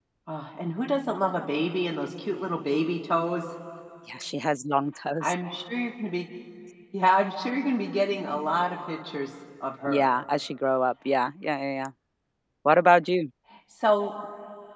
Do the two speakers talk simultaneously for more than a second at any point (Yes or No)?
No